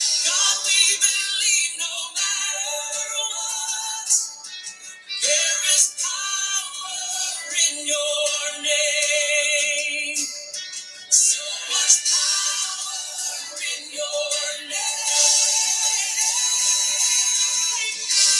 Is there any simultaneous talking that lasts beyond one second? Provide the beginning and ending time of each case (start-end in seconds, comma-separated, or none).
none